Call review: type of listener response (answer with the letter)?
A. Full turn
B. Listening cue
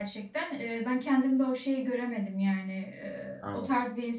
B